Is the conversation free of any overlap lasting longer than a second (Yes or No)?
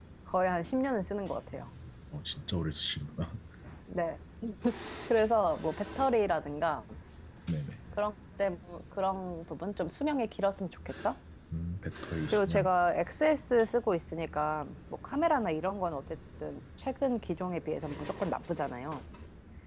Yes